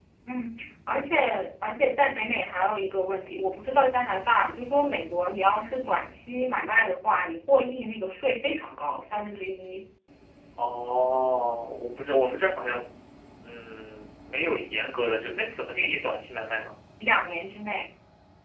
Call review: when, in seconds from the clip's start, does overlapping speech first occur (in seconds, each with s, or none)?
none